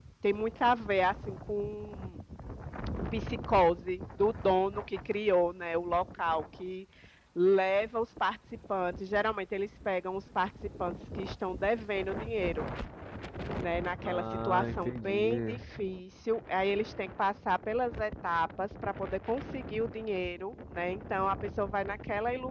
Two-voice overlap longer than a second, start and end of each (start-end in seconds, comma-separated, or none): 14.0-15.6